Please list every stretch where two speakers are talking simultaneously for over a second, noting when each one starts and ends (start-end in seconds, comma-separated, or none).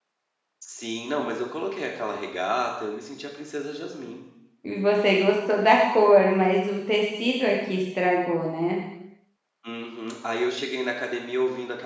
none